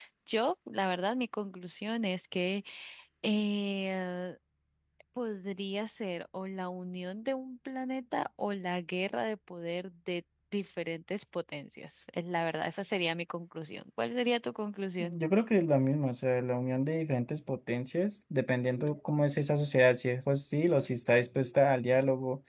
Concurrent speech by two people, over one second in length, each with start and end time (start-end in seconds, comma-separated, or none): none